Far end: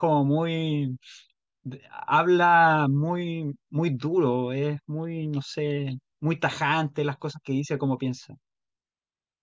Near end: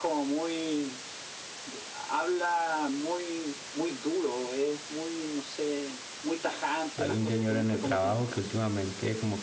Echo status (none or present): present